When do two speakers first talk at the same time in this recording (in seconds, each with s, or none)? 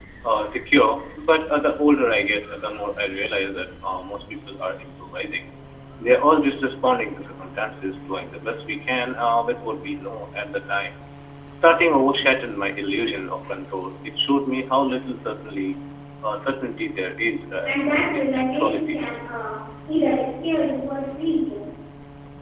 17.7 s